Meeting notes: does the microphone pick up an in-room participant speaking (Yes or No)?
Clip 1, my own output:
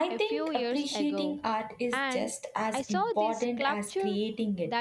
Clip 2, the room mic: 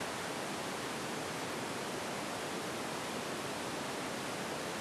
No